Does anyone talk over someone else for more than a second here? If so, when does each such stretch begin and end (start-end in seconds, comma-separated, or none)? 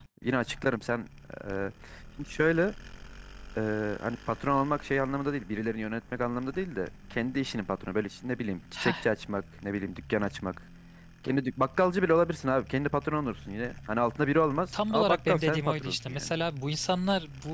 14.9-16.3